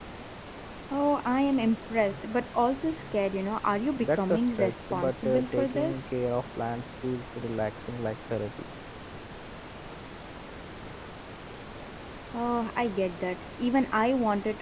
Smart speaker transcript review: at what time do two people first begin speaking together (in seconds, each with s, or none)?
4.0 s